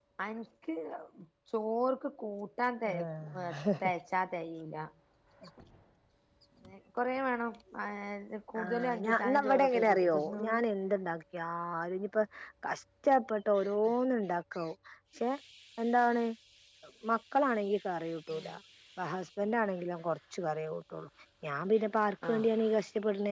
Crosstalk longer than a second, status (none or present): present